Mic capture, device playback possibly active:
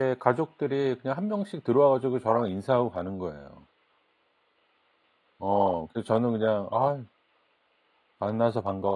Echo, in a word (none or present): none